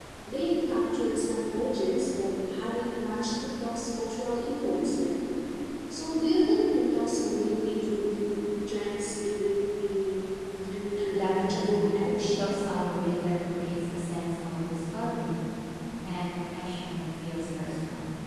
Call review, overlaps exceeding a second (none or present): present